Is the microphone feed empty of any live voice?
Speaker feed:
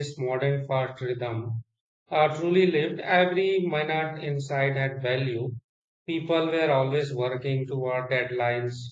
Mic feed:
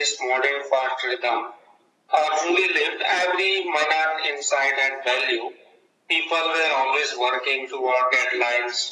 Yes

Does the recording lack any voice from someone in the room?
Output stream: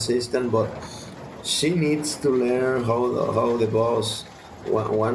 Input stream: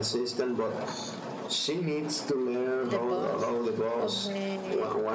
No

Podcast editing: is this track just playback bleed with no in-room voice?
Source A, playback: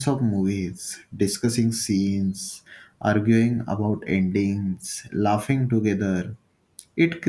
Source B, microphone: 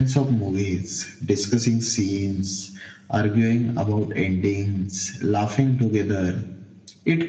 Yes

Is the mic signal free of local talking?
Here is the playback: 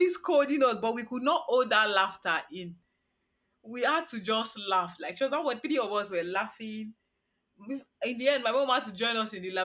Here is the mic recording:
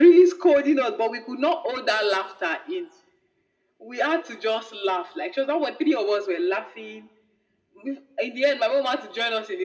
Yes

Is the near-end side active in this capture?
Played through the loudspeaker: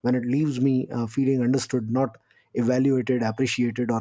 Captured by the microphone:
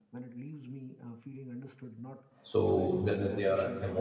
Yes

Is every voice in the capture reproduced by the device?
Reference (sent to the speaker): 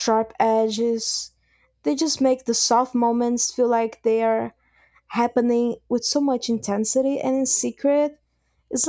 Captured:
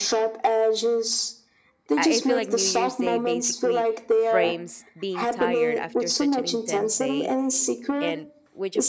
No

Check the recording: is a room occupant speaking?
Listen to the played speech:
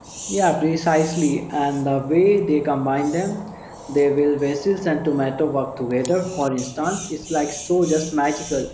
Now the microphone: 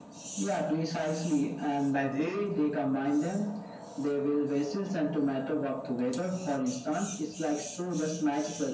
Yes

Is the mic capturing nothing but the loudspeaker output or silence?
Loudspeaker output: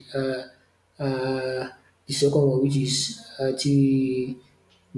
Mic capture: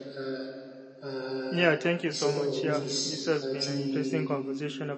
No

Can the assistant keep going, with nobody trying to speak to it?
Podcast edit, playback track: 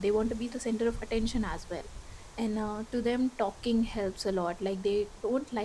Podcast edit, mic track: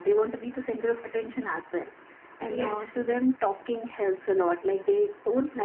No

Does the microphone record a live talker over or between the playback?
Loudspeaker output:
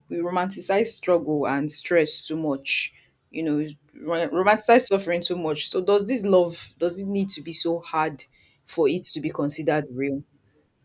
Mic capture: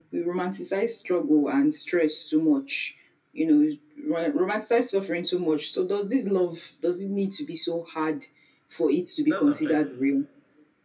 Yes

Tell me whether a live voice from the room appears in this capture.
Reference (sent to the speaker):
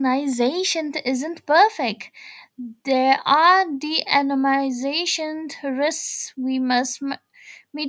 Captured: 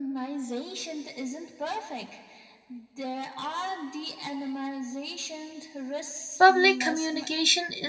Yes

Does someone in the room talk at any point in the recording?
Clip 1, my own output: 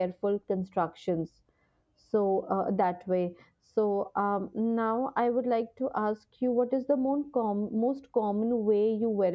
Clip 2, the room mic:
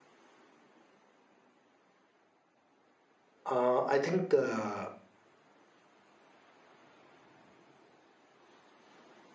Yes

